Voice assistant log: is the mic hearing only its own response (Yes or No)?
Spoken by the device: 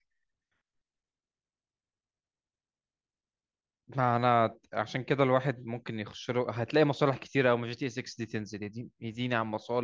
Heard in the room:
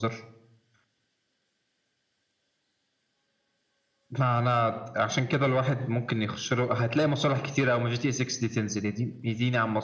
Yes